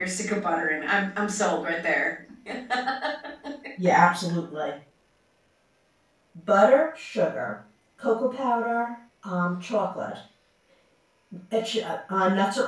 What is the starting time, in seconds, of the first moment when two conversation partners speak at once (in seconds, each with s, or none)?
none